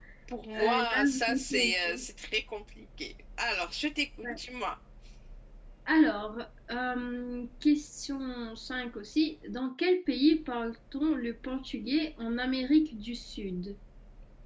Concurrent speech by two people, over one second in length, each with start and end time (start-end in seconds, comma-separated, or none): 0.6-2.0